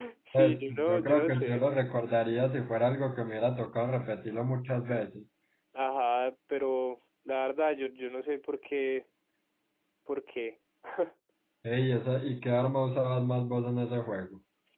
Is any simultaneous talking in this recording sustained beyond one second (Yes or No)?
Yes